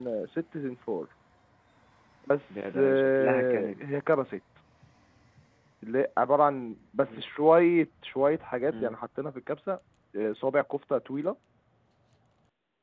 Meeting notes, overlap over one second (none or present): present